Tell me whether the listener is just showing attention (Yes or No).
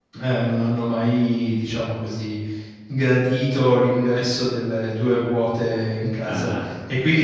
Yes